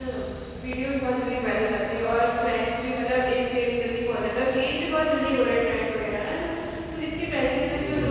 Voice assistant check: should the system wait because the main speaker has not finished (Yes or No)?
Yes